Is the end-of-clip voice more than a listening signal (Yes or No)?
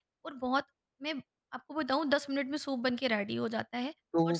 Yes